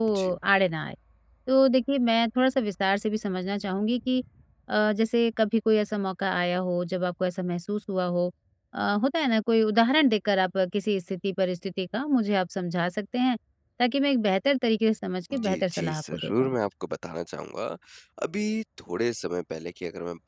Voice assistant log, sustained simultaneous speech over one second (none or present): present